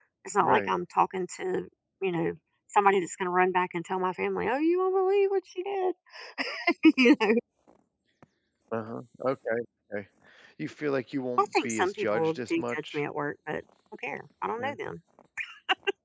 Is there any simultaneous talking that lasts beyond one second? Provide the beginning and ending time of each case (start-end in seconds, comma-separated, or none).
11.4-13.0